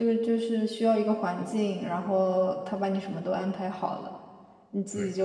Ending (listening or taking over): listening